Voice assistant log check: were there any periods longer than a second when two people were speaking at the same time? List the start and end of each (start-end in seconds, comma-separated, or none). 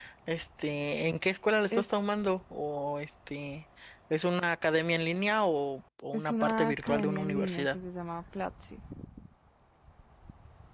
6.1-7.8